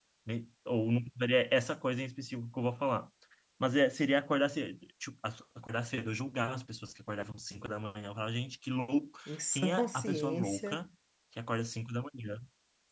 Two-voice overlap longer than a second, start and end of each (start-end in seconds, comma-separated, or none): 9.3-10.8